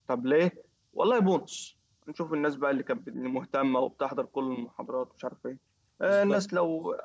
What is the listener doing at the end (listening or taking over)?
listening